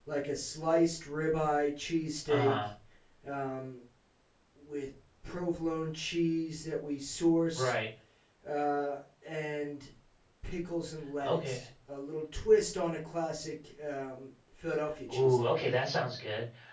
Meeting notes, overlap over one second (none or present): none